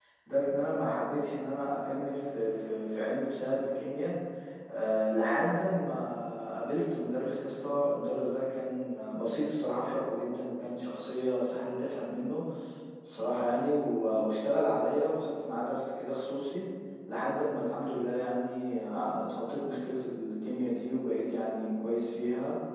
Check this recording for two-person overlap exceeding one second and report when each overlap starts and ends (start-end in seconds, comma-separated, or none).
none